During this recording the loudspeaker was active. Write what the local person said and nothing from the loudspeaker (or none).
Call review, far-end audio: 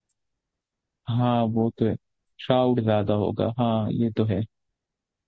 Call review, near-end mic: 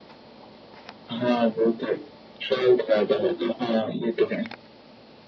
none